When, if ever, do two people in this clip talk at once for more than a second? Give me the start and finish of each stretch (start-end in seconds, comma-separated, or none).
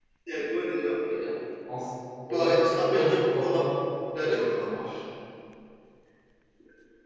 2.3-3.7